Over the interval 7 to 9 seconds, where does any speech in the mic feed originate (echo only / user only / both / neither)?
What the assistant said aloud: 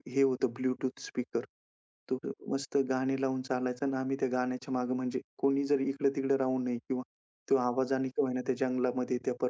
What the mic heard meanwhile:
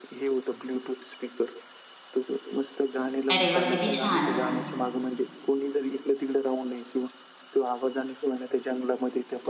echo only